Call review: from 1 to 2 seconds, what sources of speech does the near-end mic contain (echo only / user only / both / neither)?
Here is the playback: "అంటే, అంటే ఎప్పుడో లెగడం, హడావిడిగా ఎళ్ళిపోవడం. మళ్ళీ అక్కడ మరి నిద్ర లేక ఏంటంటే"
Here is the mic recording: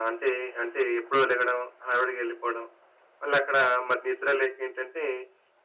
echo only